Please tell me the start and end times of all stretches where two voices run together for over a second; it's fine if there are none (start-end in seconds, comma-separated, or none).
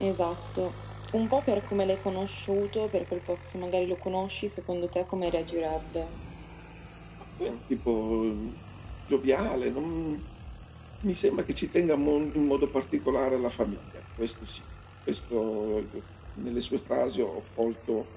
none